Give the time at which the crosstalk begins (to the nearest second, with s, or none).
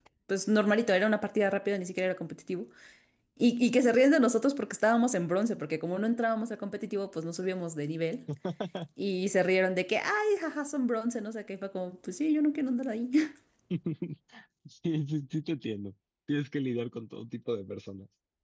none